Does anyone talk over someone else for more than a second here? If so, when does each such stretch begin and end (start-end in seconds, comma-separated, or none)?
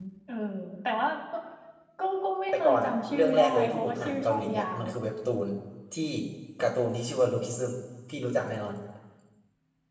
2.5-4.8